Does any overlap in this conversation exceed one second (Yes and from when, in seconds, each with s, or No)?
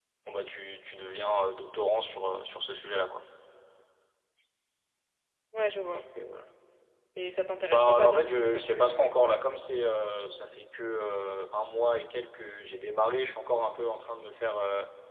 Yes, from 7.7 s